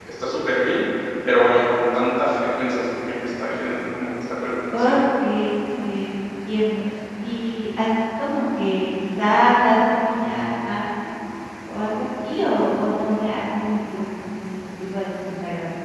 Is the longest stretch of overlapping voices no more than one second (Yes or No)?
Yes